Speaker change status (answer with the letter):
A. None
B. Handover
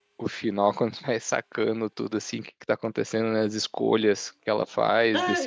B